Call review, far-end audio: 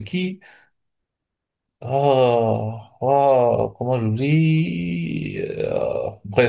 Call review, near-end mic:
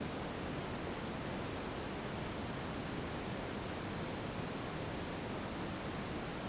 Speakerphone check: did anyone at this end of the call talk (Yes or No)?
No